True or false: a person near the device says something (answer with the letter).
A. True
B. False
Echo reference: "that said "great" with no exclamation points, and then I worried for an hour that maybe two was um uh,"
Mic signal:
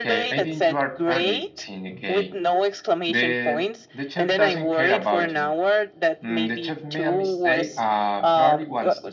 A